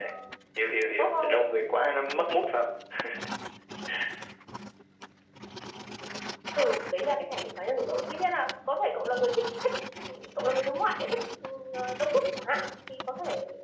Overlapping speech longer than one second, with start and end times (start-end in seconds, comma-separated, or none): none